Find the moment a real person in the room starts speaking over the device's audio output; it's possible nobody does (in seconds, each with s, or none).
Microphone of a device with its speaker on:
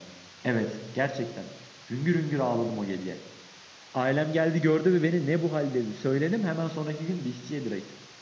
none